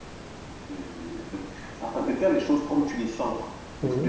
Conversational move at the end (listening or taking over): listening